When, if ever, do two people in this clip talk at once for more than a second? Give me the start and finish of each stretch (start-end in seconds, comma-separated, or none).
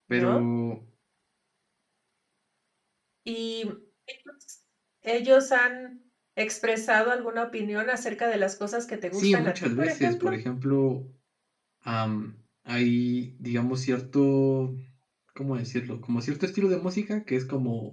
9.1-10.4